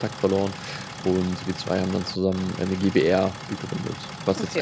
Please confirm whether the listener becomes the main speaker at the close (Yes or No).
Yes